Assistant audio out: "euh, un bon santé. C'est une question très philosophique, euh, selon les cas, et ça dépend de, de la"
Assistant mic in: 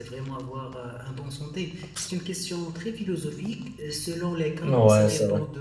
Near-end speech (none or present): present